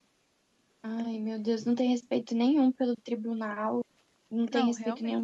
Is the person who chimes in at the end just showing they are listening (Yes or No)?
Yes